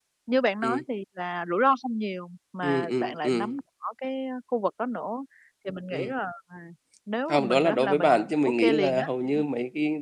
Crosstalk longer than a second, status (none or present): present